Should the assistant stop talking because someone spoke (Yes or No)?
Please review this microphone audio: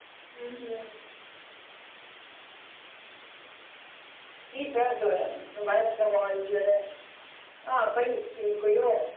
No